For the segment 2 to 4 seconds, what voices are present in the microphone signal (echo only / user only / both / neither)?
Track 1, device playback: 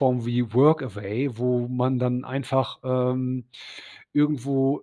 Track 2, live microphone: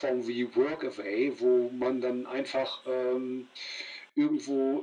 echo only